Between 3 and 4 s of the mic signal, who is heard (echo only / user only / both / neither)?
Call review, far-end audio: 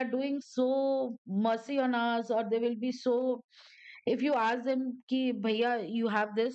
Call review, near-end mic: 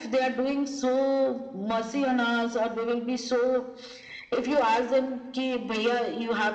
echo only